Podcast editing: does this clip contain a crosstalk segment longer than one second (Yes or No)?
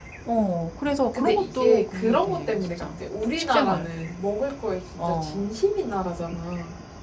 Yes